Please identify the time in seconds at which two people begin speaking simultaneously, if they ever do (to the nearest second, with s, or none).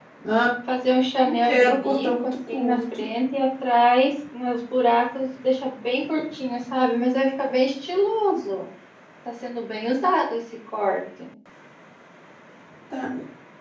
1 s